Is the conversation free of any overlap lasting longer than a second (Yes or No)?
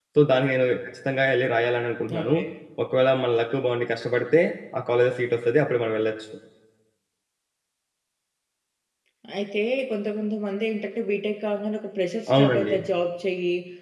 Yes